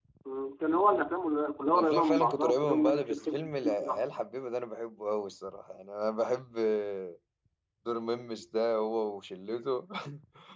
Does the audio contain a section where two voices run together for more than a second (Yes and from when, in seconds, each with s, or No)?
Yes, from 1.8 s